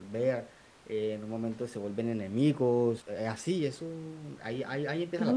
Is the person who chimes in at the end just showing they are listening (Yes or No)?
No